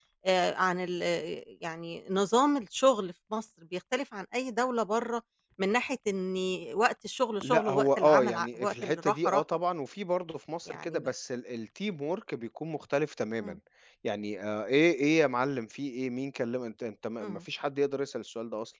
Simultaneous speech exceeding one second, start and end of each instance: 7.4-9.4

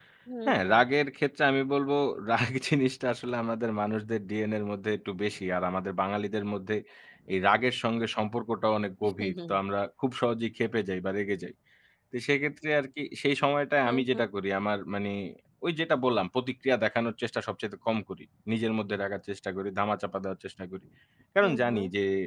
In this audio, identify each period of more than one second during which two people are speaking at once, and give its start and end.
none

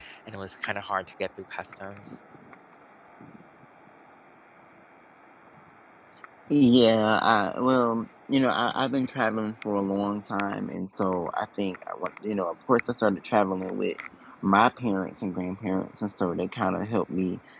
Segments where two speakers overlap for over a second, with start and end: none

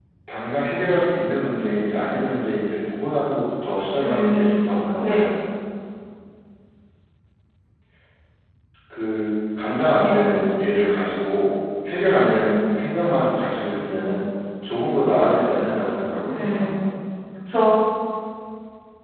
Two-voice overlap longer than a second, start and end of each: 4.0-5.3

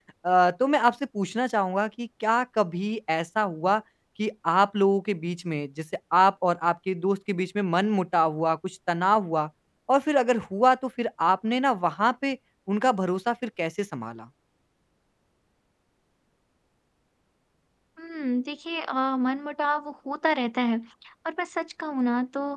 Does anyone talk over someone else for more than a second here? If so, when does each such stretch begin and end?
none

